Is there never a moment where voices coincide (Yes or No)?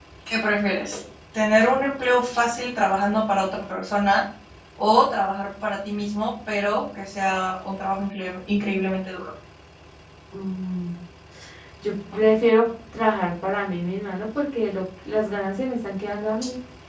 Yes